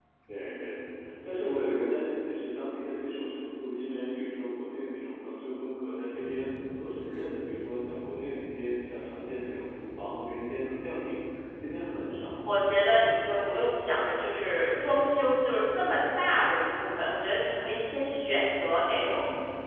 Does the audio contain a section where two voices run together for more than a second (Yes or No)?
No